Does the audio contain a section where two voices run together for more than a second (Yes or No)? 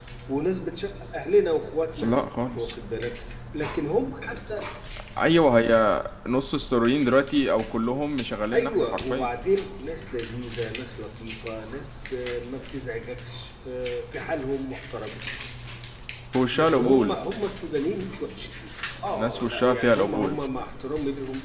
Yes